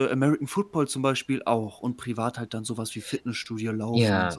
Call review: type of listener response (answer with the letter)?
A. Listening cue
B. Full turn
B